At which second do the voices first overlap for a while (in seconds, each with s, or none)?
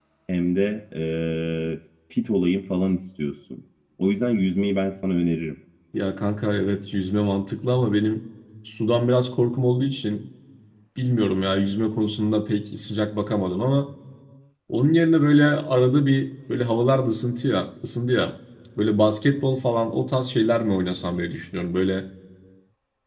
none